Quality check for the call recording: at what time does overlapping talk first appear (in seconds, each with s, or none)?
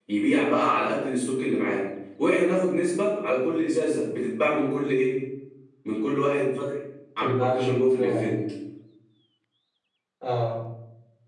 7.2 s